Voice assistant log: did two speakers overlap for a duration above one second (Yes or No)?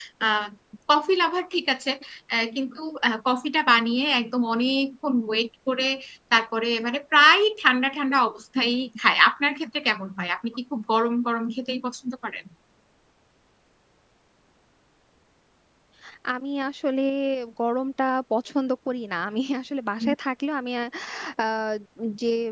No